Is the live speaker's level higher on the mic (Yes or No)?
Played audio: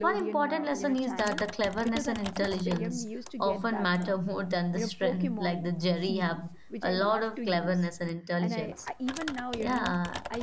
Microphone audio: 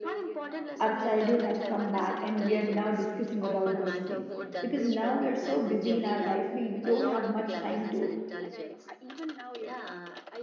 Yes